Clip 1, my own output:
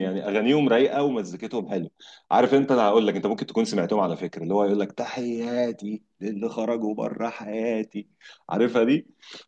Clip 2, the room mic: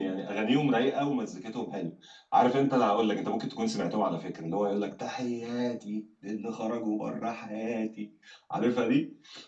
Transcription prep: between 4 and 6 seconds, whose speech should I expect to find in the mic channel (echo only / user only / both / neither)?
echo only